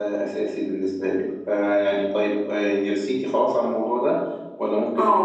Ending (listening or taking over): taking over